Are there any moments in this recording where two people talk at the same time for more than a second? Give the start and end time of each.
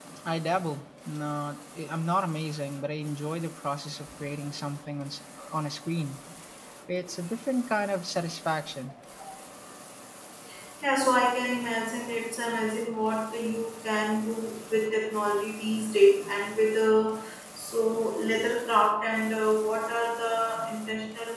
none

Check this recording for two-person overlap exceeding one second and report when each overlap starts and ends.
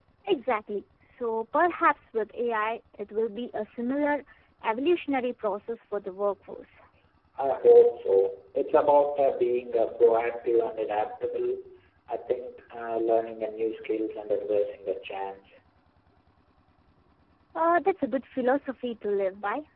none

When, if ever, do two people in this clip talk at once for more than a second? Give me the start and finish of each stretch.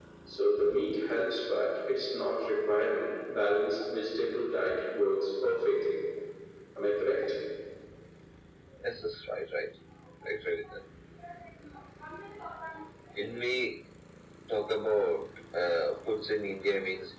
none

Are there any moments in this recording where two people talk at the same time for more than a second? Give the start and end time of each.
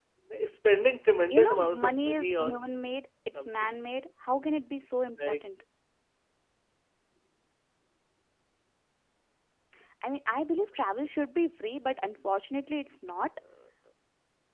1.3-2.5

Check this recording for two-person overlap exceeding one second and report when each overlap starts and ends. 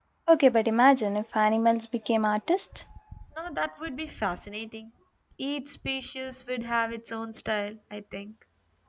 none

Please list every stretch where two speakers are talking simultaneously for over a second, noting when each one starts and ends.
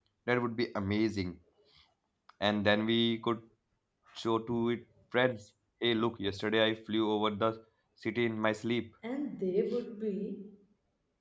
none

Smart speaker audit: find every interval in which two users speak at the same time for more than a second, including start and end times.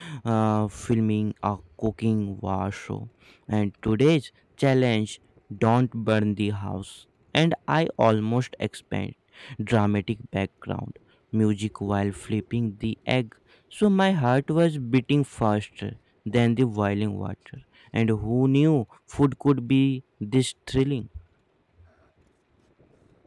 none

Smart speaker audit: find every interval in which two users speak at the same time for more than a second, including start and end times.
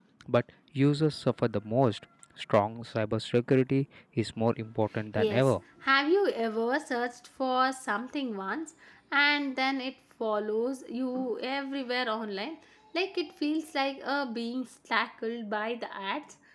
none

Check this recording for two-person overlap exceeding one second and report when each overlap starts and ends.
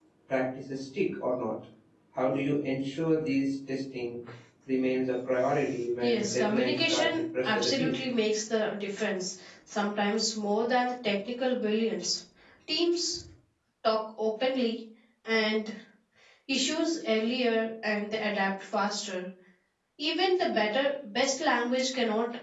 6.0-7.9

